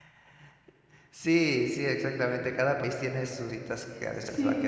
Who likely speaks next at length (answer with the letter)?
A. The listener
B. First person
A